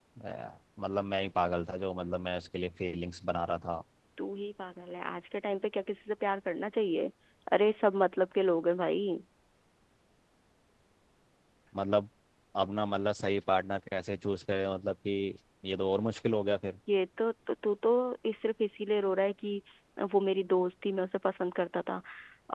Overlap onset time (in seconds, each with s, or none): none